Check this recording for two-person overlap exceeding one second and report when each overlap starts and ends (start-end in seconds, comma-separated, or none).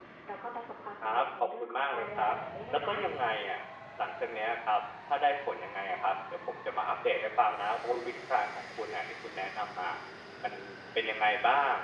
1.0-2.3